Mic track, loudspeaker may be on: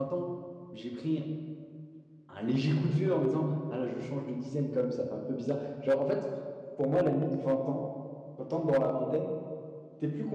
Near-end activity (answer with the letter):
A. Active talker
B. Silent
A